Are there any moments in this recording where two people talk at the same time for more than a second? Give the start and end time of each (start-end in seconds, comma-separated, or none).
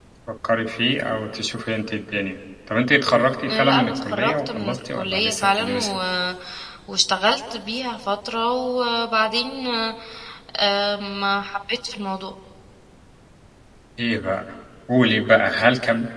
3.5-5.9